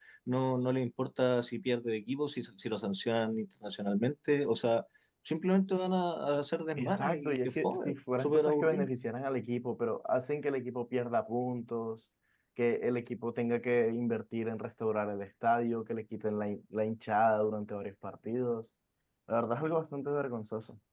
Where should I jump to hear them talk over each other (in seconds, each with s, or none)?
6.8 s